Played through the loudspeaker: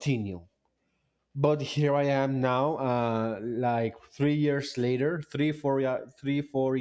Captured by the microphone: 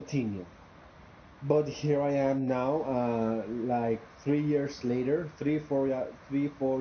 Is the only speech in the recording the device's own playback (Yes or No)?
Yes